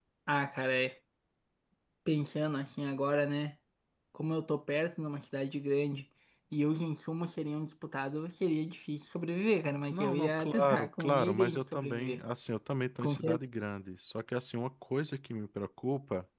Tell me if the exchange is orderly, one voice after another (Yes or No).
No